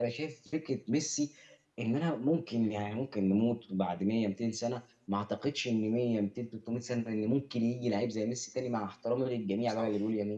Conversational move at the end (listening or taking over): listening